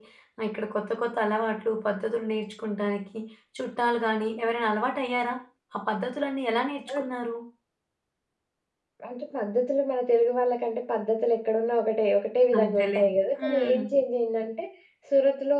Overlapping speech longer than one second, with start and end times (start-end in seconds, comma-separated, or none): none